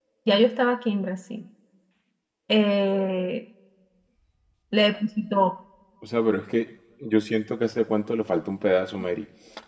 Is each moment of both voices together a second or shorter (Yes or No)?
Yes